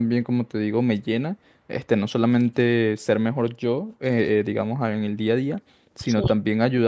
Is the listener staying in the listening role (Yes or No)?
Yes